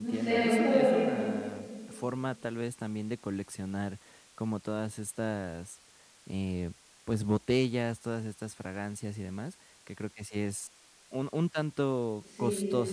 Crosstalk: present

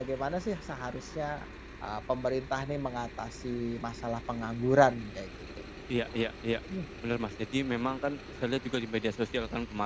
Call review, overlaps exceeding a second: none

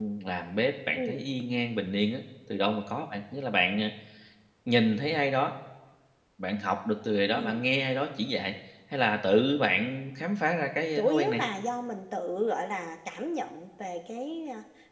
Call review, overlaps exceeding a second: none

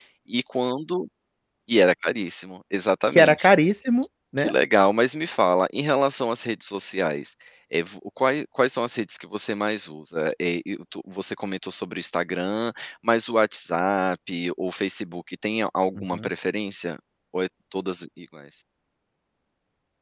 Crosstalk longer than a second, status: none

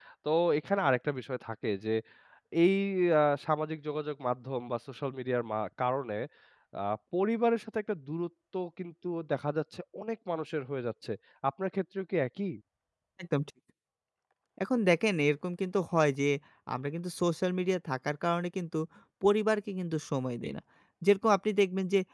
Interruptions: none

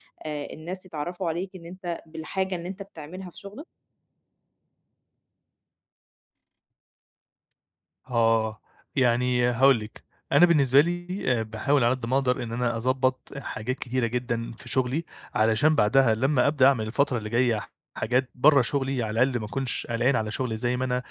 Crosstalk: none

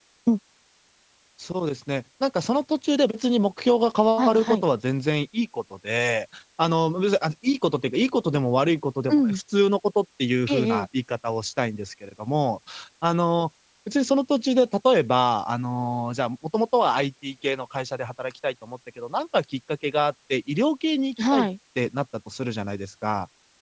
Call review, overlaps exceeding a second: none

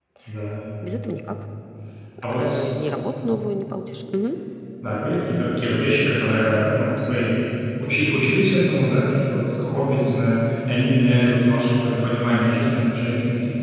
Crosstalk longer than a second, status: none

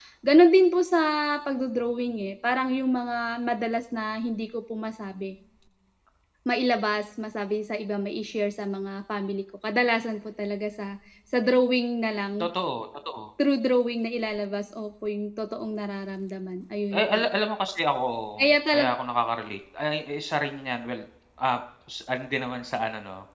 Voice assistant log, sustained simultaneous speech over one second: none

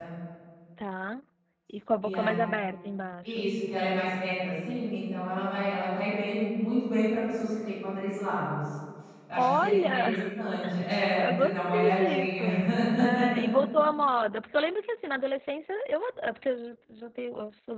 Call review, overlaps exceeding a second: present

